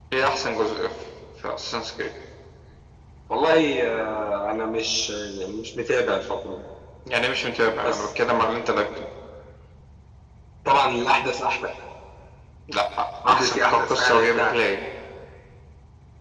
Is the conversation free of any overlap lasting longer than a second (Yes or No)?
No